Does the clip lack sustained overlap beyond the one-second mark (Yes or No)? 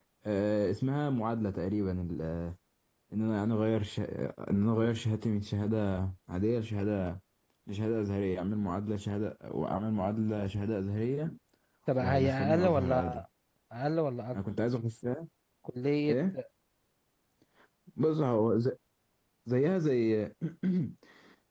No